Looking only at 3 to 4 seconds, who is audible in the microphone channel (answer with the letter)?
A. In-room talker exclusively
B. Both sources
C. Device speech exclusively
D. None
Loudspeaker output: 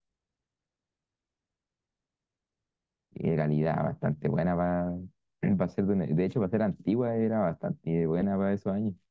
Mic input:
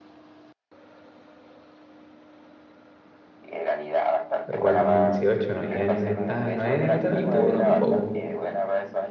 C